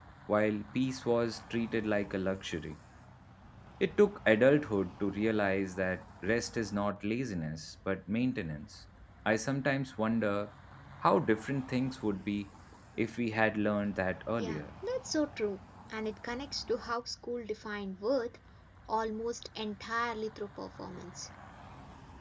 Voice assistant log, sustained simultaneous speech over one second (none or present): none